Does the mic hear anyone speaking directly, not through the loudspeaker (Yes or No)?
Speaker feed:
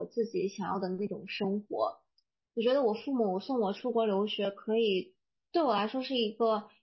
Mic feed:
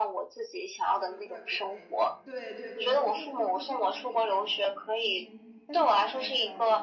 Yes